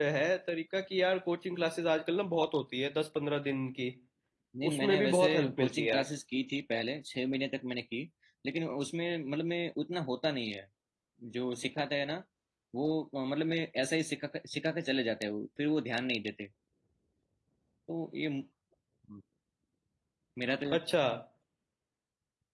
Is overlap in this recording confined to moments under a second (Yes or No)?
No